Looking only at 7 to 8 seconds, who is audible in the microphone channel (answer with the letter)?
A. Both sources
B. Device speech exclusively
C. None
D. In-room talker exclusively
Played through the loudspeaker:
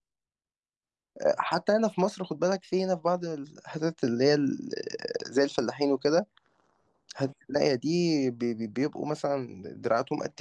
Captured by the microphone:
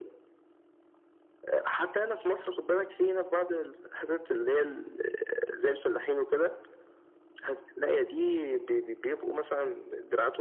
B